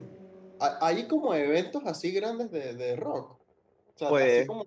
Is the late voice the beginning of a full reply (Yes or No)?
No